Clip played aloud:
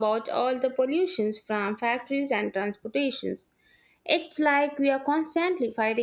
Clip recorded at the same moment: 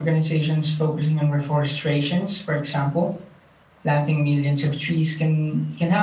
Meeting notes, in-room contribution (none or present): present